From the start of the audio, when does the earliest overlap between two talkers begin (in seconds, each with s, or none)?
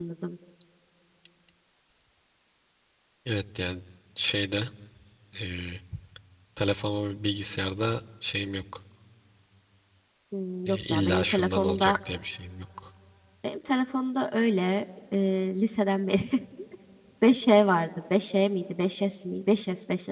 10.7 s